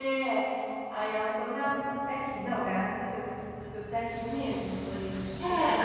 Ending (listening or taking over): taking over